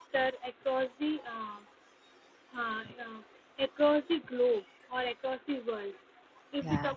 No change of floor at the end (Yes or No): Yes